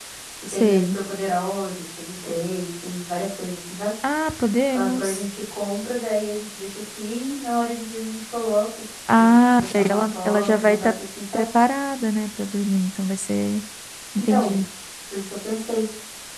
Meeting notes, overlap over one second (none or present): present